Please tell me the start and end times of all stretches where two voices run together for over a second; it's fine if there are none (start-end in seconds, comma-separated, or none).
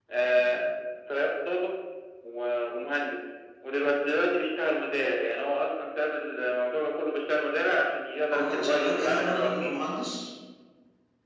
8.3-9.8